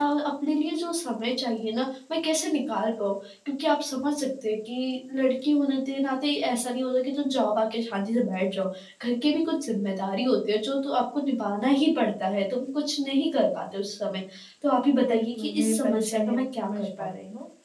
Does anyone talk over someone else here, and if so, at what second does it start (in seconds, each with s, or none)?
15.0 s